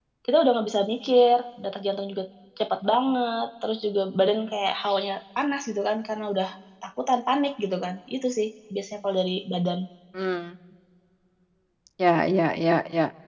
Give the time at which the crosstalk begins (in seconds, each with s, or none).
none